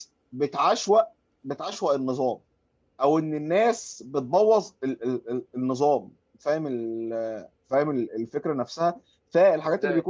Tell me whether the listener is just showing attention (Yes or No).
Yes